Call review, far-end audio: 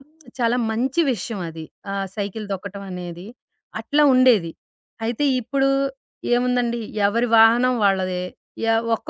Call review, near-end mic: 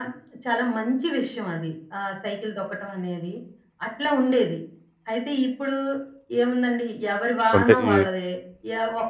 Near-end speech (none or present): present